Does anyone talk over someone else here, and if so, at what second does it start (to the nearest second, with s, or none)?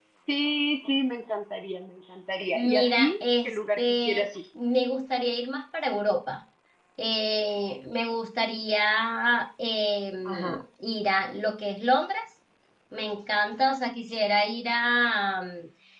3 s